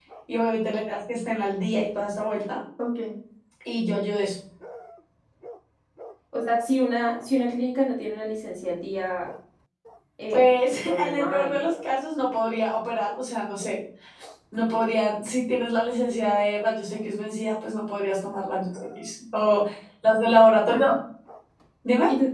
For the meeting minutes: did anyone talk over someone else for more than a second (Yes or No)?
Yes